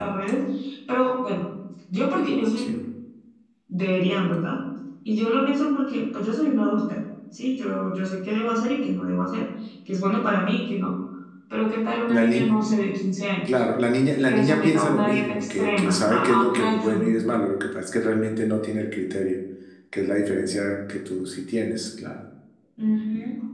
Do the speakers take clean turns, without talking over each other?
No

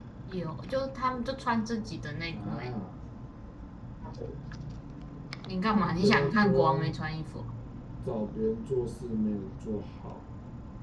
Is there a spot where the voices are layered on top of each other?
Yes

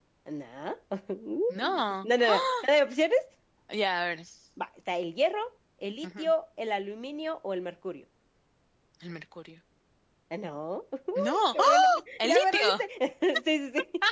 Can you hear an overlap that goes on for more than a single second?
Yes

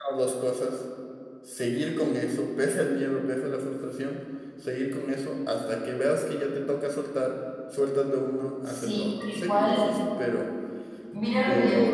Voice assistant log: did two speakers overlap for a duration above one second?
Yes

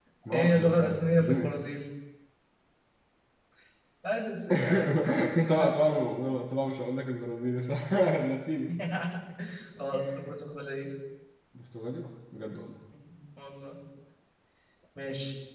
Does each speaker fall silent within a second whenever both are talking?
No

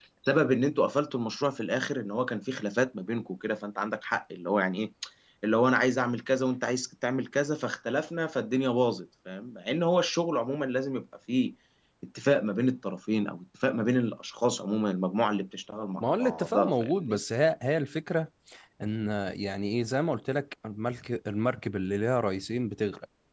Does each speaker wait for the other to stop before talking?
No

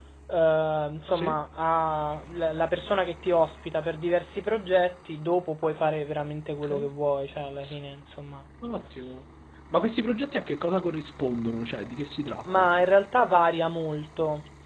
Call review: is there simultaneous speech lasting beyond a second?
No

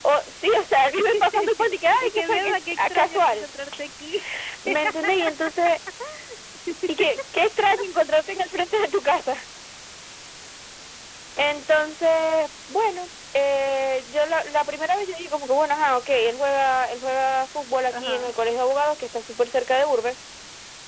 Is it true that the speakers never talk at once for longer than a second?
No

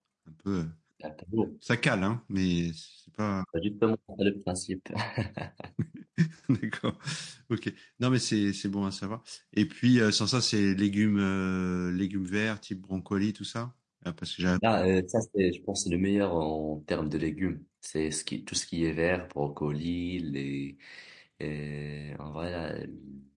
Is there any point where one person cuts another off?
No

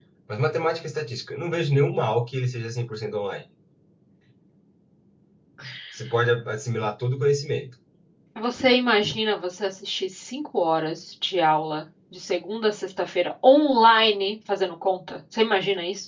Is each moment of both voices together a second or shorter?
Yes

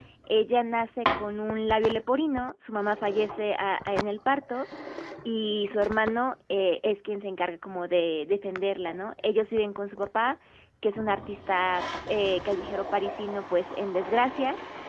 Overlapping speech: No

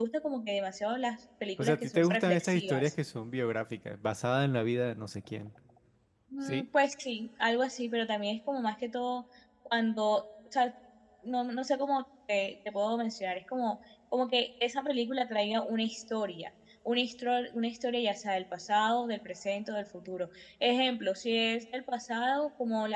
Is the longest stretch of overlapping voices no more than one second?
No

